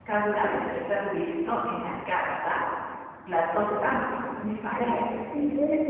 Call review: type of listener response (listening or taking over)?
taking over